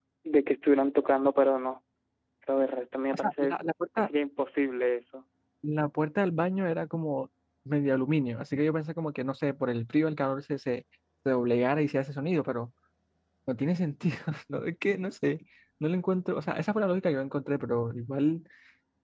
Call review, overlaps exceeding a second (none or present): none